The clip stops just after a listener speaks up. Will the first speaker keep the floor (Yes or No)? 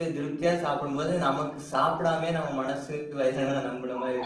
No